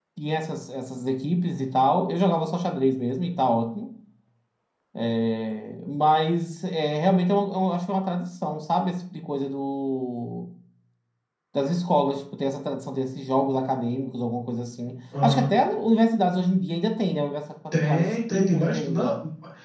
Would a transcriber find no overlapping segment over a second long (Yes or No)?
No